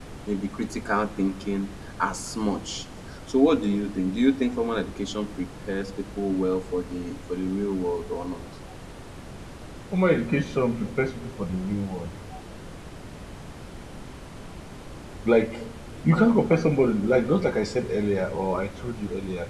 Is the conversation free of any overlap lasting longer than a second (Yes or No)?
Yes